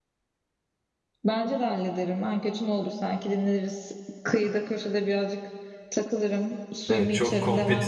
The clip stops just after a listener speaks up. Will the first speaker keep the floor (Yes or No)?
No